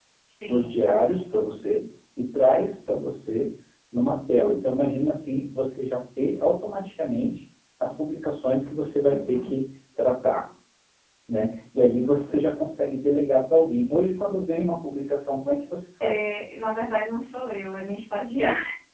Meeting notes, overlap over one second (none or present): none